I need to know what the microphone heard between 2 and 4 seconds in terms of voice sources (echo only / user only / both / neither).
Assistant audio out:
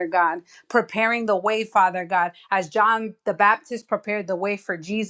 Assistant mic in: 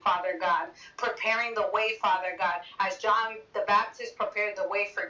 echo only